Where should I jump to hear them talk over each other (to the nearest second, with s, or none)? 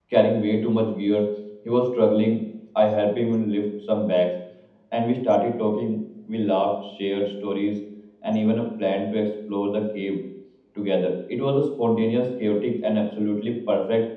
none